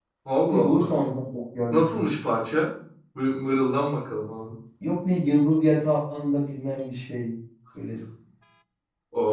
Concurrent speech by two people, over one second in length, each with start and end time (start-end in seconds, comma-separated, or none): none